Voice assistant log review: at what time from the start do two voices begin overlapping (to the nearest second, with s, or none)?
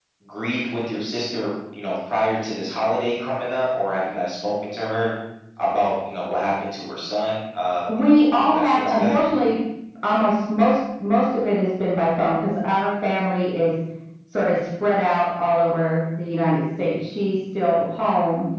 8 s